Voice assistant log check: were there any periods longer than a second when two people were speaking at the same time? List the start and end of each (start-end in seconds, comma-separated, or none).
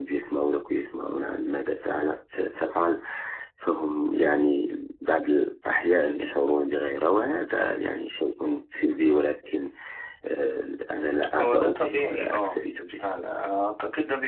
11.4-13.0